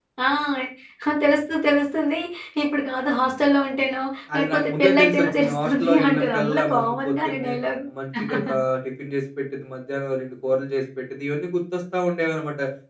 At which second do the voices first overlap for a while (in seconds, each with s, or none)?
4.3 s